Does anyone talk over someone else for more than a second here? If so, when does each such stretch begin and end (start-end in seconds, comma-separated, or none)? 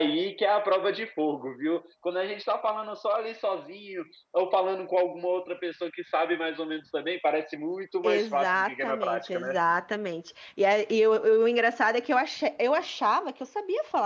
8.1-9.5